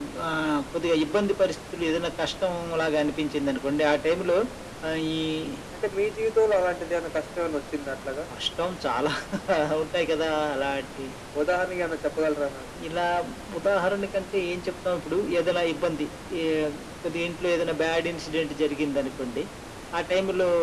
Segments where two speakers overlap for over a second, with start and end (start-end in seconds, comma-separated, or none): none